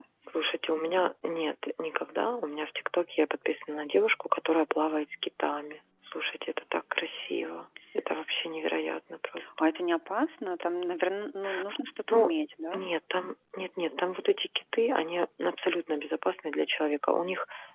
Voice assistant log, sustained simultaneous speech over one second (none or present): none